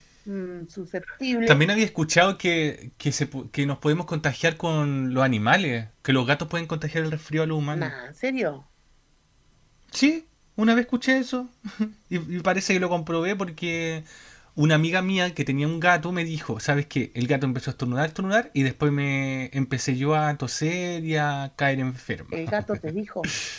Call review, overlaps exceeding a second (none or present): none